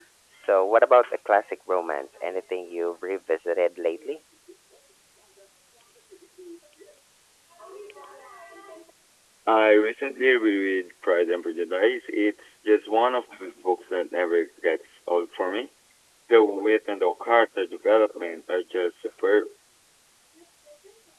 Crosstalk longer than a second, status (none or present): none